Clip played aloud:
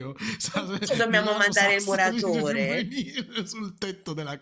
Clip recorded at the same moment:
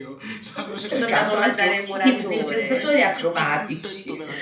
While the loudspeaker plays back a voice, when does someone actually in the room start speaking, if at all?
0.7 s

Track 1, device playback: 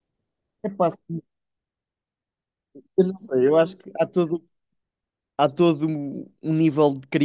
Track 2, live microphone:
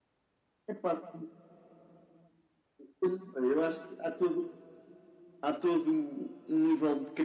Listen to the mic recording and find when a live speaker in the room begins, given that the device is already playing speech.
none

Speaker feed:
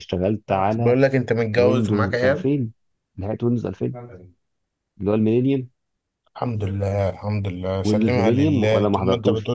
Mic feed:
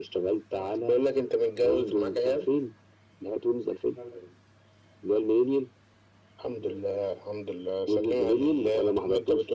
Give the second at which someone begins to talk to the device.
none

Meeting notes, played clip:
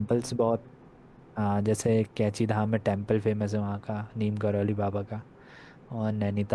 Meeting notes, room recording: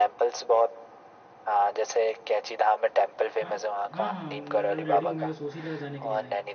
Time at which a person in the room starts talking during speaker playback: 3.4 s

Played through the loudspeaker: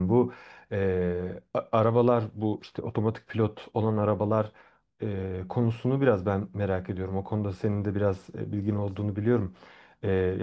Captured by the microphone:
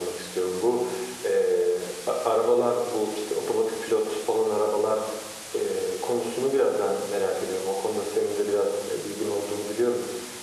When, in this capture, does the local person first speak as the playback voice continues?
none

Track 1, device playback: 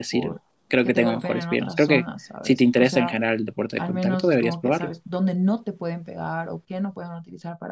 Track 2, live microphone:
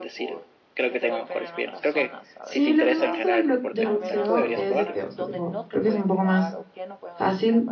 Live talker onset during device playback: 2.4 s

